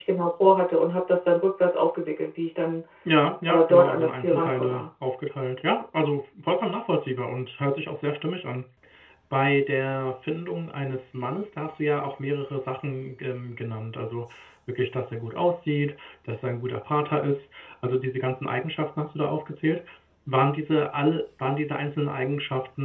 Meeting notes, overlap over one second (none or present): present